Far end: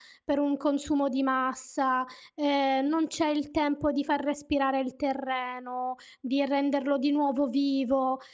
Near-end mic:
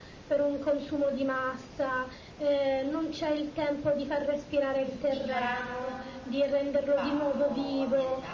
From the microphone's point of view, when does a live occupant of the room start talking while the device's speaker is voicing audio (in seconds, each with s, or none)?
4.8 s